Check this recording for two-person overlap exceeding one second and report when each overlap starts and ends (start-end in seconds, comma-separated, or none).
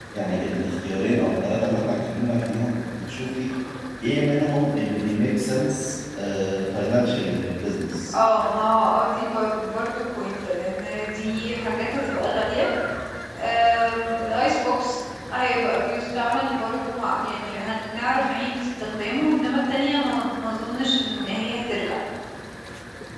none